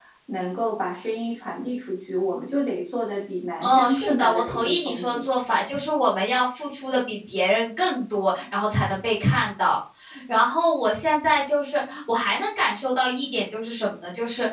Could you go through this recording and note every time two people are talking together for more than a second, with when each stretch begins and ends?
3.6-5.2

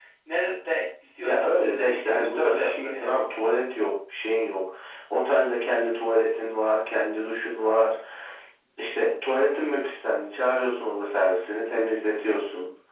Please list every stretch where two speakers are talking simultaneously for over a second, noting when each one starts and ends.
1.2-3.1

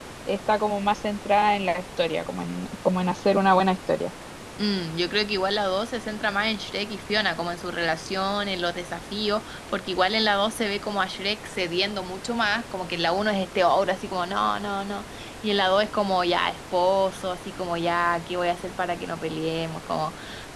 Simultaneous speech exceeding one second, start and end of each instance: none

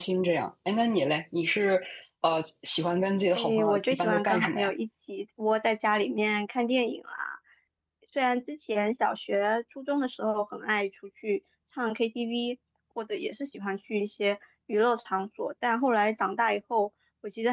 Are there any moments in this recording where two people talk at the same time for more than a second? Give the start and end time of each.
3.4-4.7

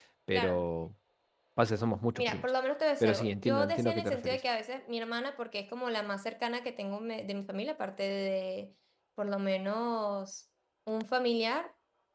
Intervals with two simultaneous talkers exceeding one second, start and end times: 3.0-4.4

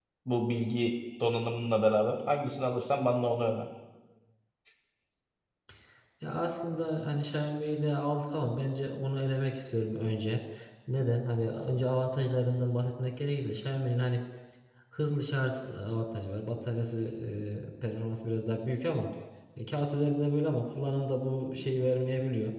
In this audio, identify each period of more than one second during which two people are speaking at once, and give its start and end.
none

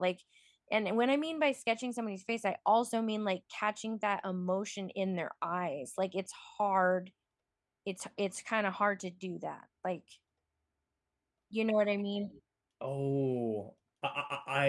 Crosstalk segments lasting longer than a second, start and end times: none

